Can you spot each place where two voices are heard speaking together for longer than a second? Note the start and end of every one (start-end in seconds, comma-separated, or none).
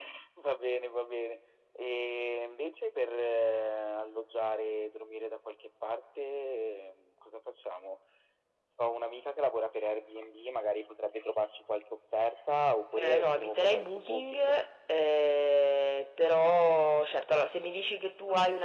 13.0-14.6